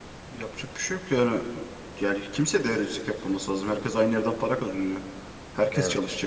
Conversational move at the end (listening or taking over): listening